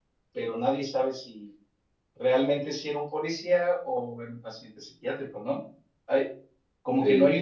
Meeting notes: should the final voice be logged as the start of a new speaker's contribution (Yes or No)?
No